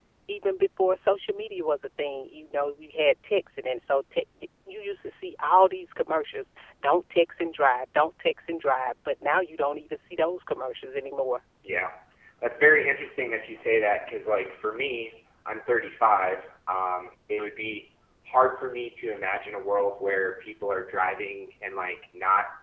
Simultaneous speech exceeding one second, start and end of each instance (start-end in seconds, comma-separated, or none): none